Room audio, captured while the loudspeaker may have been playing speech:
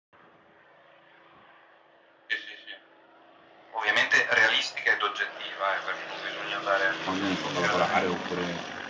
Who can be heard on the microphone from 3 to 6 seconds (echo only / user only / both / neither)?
echo only